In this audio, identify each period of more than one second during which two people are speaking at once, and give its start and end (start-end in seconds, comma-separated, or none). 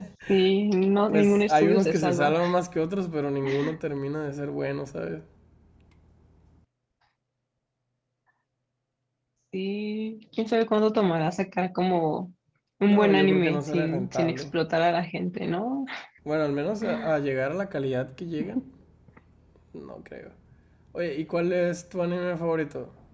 1.1-2.3, 12.9-14.4